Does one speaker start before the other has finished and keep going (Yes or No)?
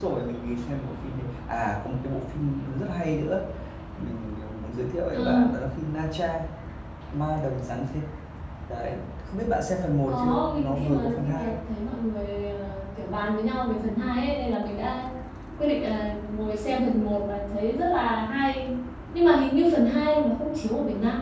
Yes